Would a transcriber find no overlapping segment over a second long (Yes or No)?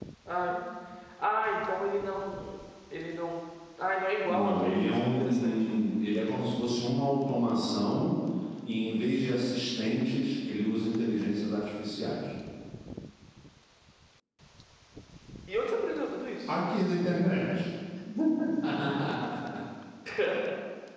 No